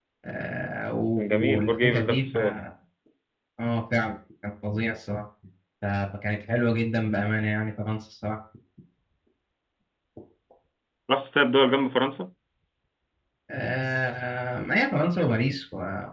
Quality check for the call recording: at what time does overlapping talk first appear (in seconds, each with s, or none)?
1.2 s